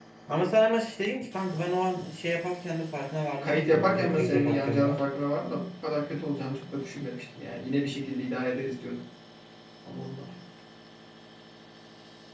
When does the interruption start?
3.4 s

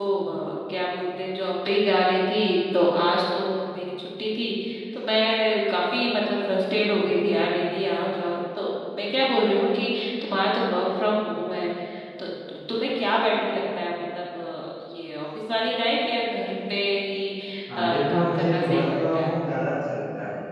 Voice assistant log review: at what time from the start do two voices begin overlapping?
17.8 s

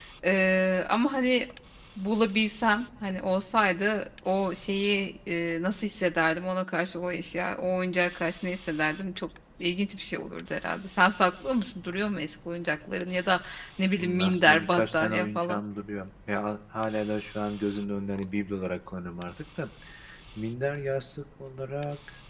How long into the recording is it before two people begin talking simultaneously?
14.0 s

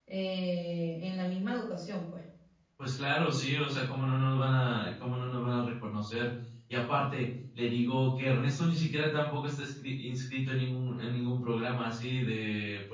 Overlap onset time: none

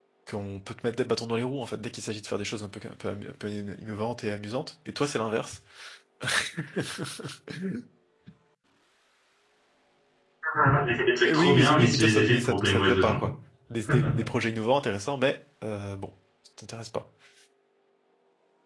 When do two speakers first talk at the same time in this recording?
11.2 s

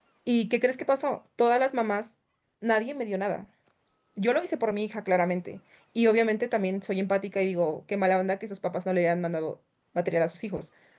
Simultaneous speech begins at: none

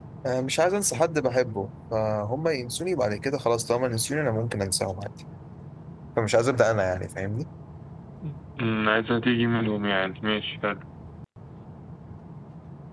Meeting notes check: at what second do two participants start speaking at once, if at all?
none

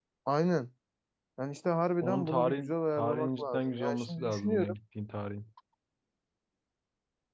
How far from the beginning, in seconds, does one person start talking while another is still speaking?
2.0 s

